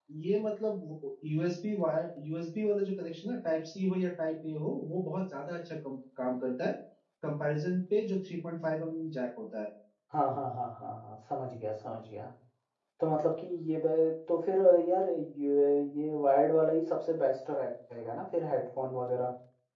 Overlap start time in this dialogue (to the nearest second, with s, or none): none